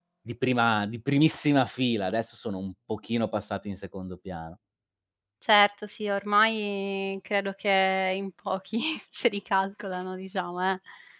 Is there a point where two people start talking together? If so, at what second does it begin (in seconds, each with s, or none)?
none